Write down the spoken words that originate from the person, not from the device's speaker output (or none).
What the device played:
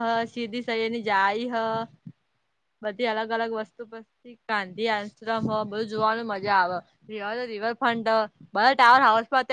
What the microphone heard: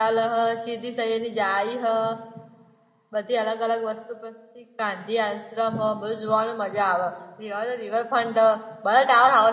none